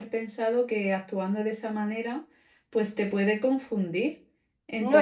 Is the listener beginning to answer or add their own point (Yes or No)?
No